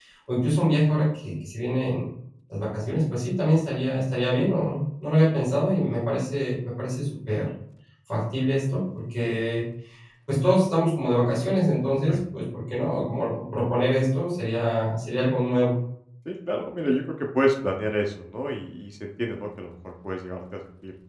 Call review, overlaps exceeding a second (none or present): none